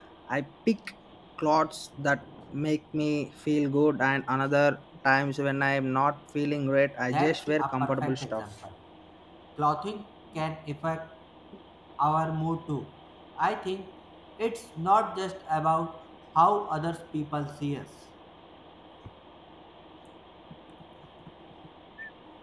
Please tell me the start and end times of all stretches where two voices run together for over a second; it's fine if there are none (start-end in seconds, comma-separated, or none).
7.1-8.4